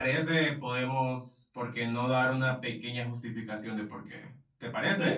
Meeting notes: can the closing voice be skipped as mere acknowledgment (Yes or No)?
No